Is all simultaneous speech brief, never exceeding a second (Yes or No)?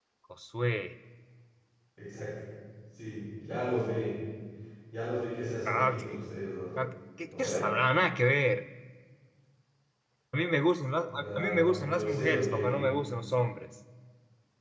No